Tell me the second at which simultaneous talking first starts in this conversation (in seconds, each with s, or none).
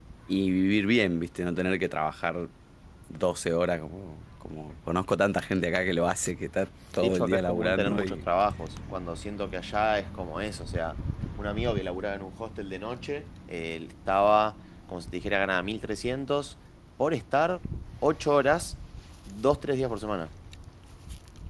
7.0 s